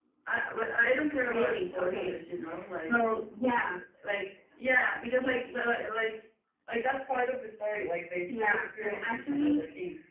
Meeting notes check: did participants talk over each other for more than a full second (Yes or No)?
Yes